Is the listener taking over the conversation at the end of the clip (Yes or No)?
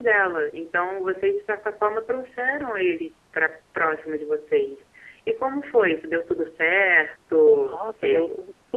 Yes